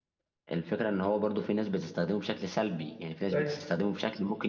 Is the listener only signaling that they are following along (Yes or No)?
Yes